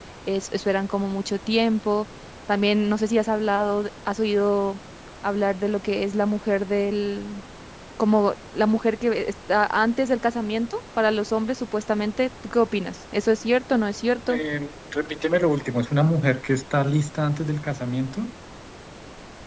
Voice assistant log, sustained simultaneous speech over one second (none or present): none